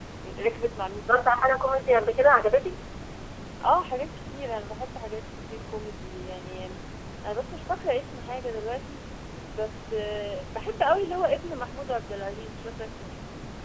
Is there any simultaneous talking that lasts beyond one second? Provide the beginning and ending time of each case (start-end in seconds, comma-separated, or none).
none